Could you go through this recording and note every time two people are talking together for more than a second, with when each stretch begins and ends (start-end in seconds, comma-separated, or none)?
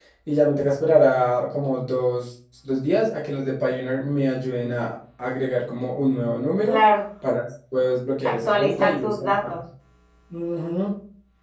8.2-9.6